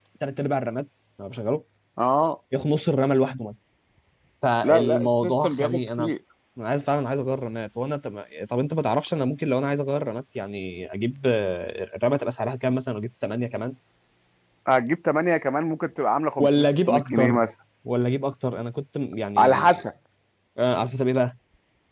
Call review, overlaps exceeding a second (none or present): present